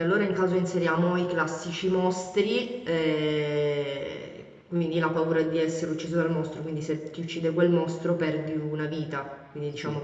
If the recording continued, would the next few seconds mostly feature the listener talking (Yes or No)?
No